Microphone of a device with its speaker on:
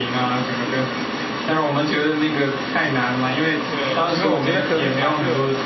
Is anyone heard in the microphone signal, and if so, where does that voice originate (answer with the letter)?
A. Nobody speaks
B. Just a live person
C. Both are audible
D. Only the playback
C